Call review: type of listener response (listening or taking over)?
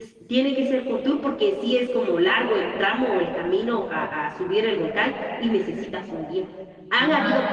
listening